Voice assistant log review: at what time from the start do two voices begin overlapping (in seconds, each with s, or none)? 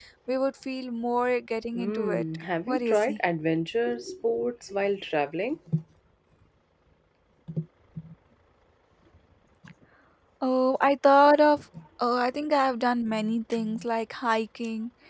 1.7 s